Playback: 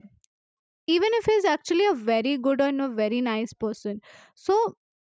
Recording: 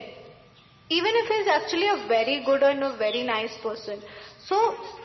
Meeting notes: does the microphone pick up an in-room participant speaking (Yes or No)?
No